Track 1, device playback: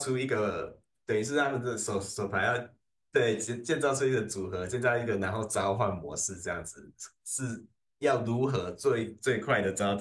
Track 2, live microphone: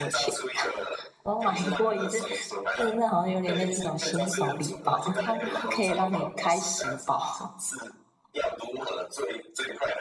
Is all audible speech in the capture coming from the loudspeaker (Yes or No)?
No